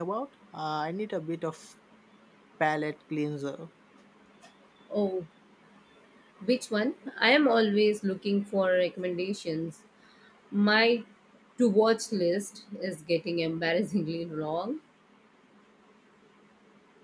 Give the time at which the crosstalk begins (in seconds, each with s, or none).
none